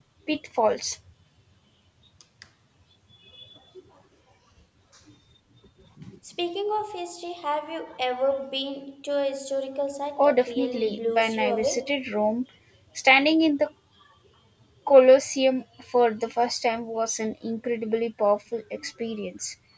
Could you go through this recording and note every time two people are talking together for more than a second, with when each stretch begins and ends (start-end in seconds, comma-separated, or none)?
10.2-11.8